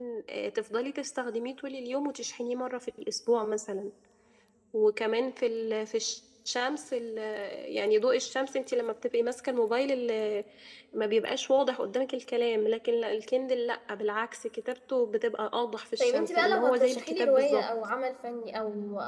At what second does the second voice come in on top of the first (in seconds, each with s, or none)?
16.0 s